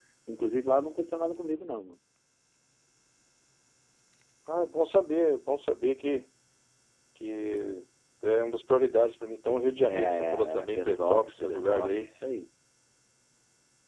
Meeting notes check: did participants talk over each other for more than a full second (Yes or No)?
Yes